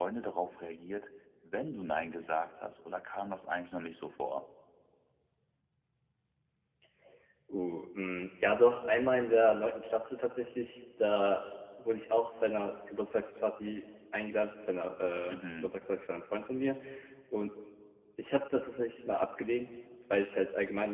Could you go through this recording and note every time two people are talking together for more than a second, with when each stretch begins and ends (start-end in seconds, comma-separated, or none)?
none